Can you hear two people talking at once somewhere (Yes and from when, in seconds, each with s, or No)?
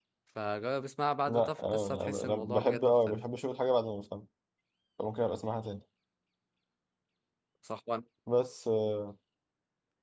Yes, from 1.3 s